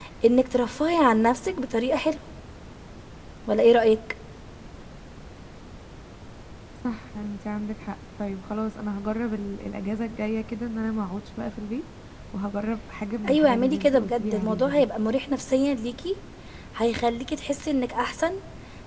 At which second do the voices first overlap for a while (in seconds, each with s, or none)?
13.2 s